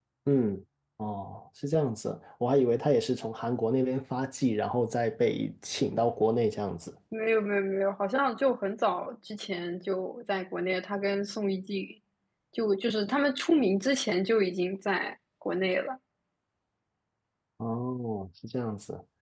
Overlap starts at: none

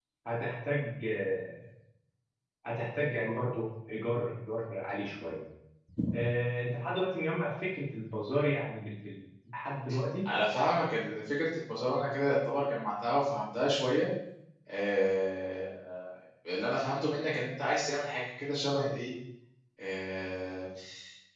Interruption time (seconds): none

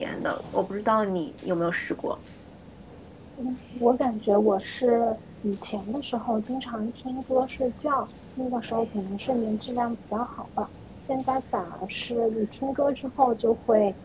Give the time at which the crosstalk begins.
none

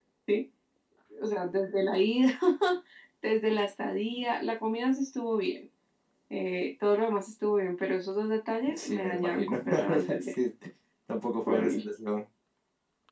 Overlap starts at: 8.8 s

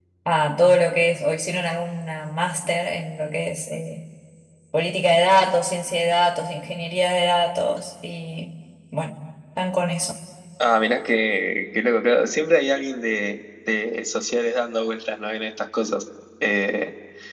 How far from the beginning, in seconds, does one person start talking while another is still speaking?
none

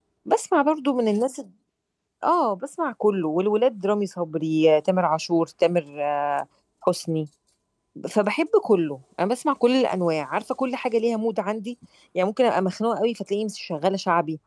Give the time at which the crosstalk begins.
none

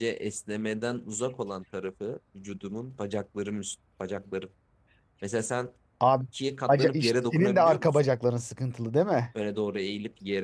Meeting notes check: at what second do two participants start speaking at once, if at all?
6.7 s

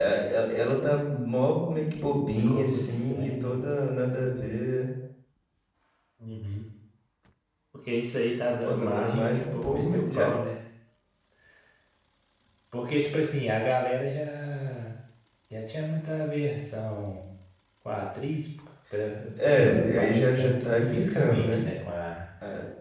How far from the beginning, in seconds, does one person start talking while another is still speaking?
2.4 s

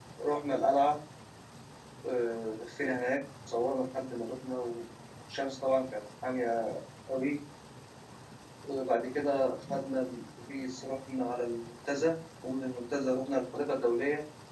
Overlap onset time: none

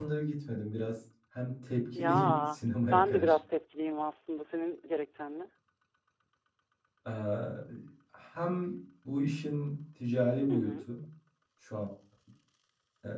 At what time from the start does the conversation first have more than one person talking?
1.9 s

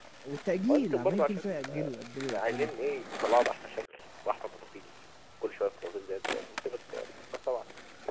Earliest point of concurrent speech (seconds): 0.7 s

